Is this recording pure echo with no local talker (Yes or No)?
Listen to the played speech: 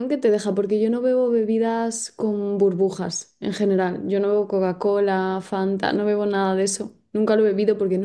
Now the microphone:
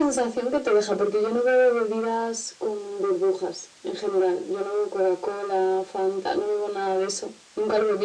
Yes